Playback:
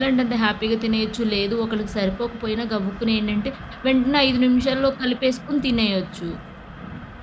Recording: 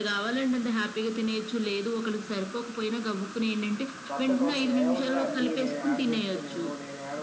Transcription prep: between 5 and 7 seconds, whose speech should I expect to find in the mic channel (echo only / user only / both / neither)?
both